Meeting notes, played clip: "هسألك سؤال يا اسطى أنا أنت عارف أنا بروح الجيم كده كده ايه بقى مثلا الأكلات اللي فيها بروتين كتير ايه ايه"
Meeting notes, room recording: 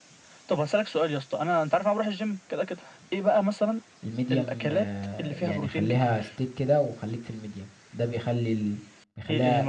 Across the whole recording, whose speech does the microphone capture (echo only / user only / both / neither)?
both